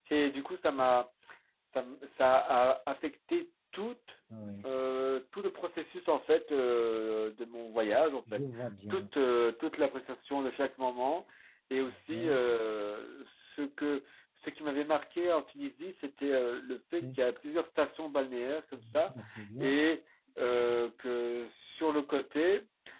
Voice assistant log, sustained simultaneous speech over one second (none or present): none